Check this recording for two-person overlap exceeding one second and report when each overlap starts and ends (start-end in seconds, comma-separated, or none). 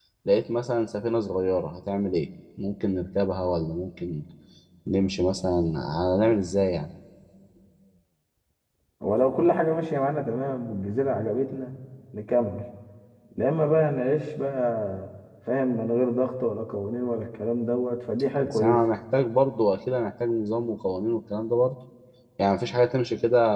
none